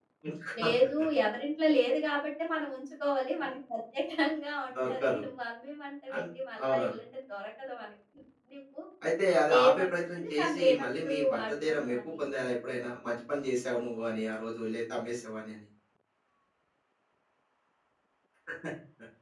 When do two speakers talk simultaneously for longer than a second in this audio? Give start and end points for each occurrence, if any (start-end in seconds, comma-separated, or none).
9.6-12.2